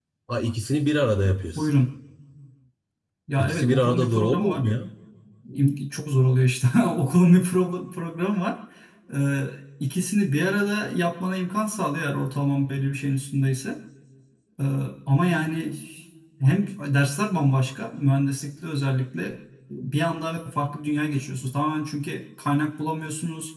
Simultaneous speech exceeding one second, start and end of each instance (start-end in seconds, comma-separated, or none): 3.4-4.6